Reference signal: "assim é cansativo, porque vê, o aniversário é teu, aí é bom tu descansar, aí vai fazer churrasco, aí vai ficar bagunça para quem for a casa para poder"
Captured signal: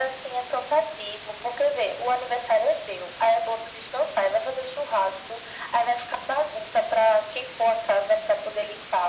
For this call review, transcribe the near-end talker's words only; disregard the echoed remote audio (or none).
none